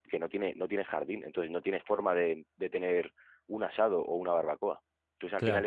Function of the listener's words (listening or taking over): listening